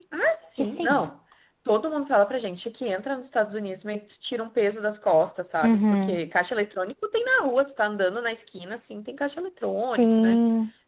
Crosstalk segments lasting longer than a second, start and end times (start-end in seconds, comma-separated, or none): none